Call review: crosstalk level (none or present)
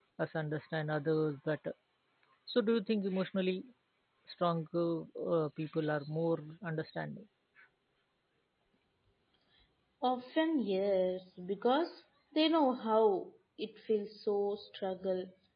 none